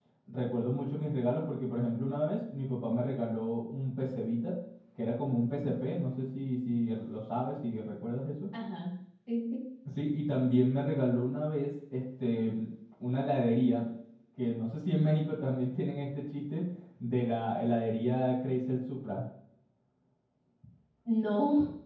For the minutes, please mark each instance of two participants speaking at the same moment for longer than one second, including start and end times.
none

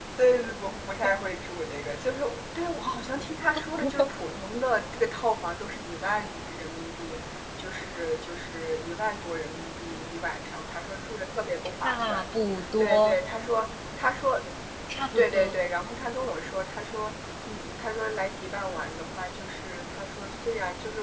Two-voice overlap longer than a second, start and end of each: none

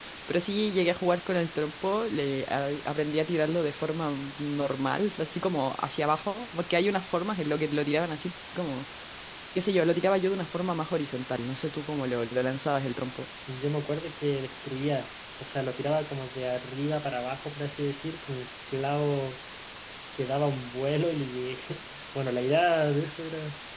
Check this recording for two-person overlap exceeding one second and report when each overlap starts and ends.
none

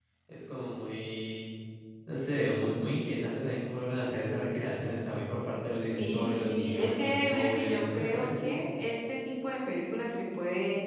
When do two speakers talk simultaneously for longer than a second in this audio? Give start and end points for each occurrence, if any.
5.8-8.6

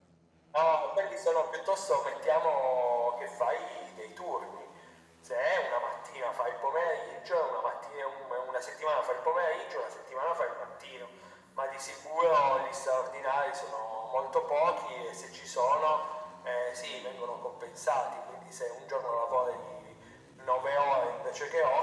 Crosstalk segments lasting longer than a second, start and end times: none

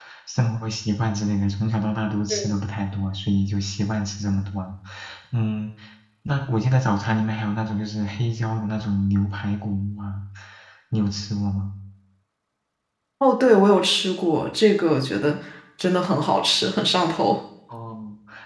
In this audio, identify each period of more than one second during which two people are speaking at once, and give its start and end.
none

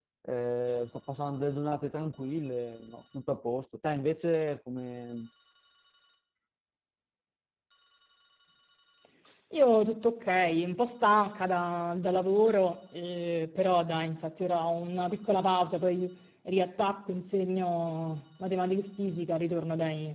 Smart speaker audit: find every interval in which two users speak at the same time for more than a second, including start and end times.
none

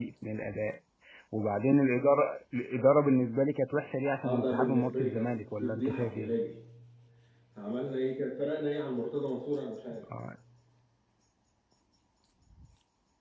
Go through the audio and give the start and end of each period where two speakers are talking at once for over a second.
4.2-6.3

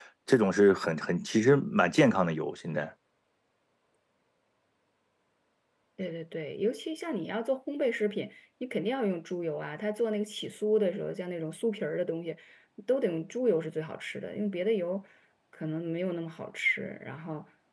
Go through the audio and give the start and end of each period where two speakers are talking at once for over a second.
none

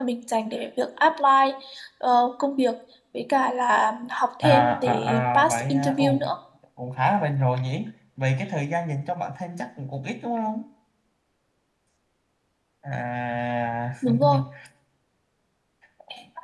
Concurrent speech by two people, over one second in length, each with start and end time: 4.4-6.0

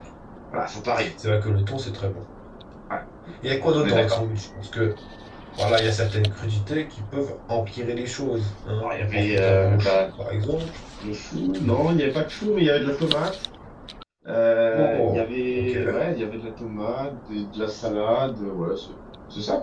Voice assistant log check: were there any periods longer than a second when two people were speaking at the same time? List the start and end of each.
8.8-10.1, 14.7-16.0

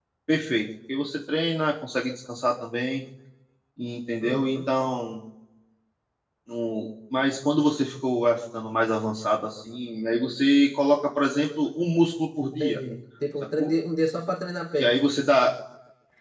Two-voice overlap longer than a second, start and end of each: none

